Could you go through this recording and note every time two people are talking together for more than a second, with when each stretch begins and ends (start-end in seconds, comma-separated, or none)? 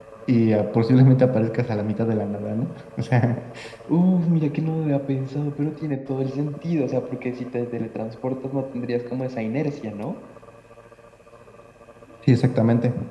none